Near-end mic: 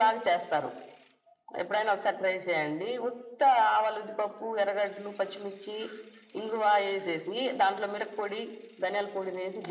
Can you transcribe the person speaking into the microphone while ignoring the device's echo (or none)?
none